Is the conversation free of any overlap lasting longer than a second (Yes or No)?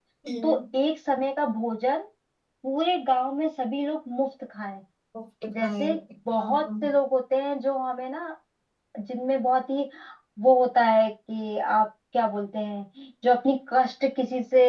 Yes